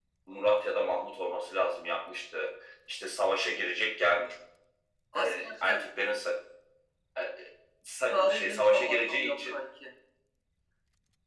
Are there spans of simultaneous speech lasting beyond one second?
Yes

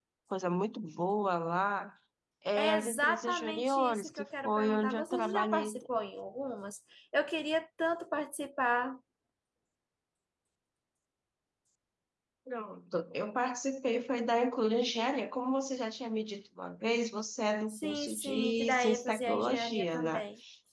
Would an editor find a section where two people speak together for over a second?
Yes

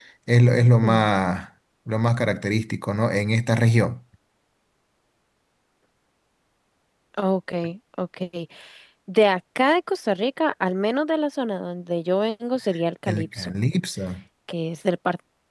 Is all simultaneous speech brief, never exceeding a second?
Yes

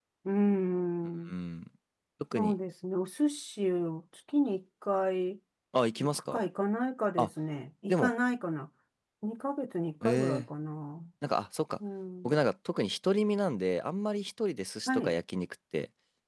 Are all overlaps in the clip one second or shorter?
Yes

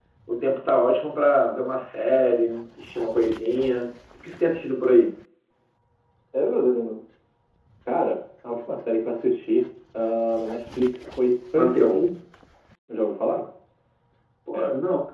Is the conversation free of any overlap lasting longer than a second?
Yes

